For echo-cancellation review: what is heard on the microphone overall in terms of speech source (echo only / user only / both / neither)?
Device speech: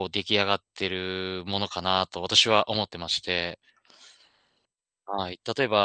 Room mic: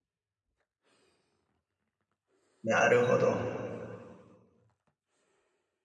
user only